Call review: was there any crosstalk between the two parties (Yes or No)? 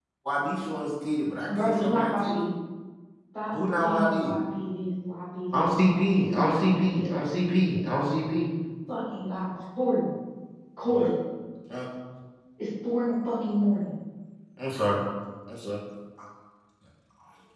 Yes